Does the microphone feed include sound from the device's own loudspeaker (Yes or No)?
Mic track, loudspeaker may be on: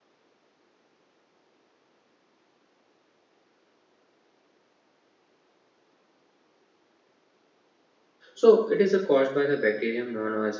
No